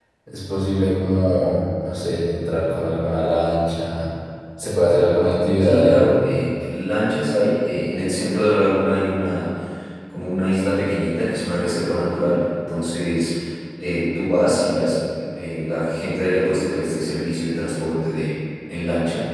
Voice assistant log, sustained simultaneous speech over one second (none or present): none